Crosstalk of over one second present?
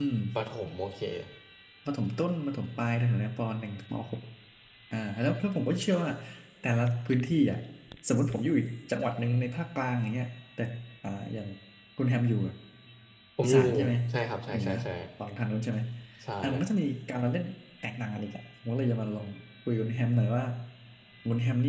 No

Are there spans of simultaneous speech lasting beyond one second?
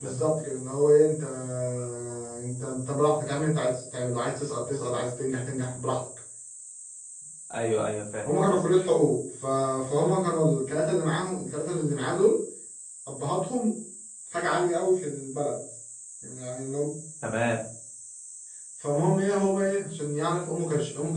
No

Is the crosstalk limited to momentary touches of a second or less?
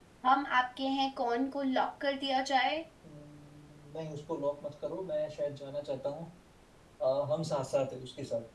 Yes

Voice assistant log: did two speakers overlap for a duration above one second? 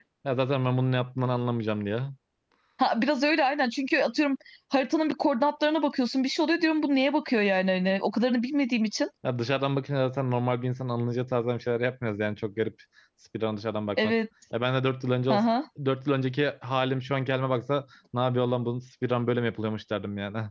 No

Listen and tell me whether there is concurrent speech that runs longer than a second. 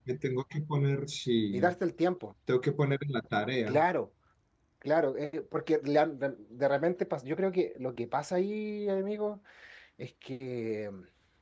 No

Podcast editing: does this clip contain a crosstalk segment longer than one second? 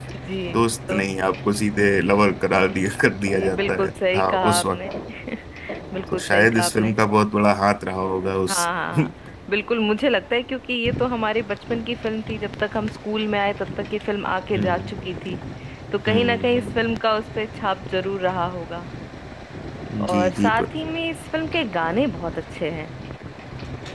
Yes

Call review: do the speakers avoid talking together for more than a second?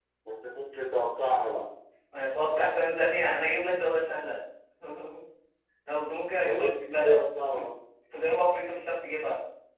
No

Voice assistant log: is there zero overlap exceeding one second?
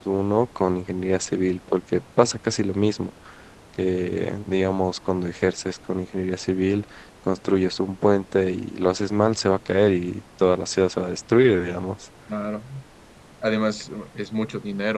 Yes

